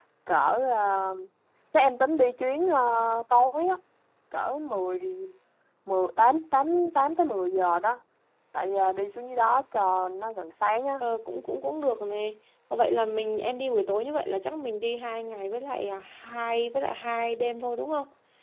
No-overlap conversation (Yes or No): Yes